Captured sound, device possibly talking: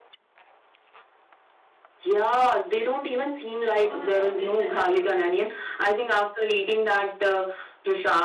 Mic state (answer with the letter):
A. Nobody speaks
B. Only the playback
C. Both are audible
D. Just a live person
C